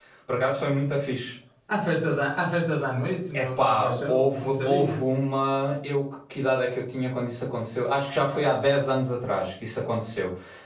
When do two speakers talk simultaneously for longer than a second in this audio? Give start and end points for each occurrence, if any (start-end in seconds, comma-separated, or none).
3.4-5.0